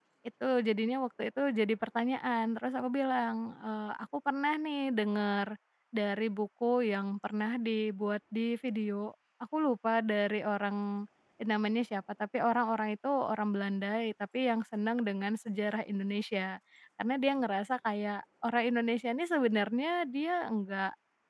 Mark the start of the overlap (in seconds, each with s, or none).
none